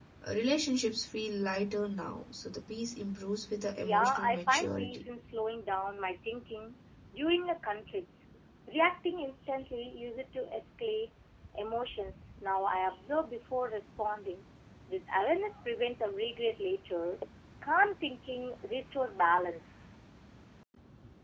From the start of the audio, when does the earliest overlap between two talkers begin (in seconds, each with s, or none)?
3.8 s